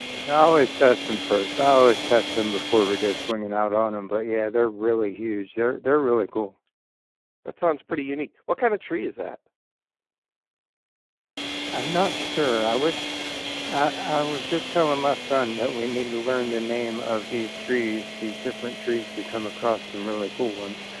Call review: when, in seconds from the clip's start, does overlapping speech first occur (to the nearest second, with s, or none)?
none